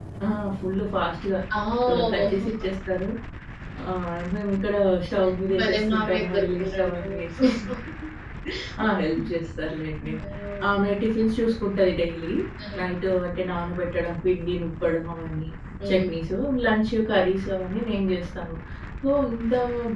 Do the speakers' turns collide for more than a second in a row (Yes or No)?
Yes